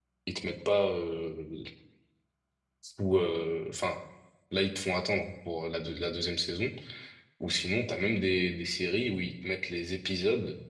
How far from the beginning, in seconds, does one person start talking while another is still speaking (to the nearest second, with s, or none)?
none